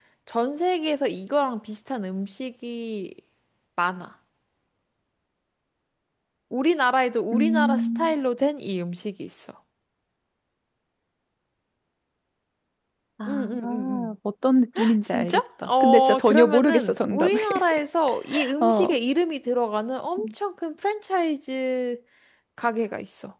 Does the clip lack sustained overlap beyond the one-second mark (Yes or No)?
No